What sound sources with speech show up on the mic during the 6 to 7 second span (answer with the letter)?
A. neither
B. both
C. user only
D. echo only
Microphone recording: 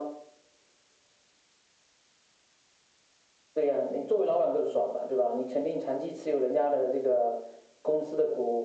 D